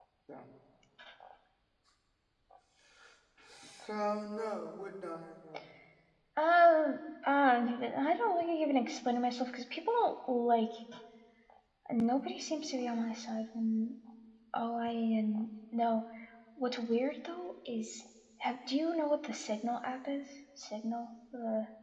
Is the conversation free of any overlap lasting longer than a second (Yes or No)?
Yes